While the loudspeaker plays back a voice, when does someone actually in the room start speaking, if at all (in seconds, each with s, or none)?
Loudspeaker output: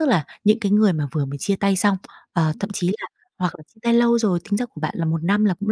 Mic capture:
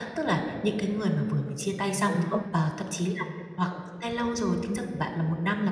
2.0 s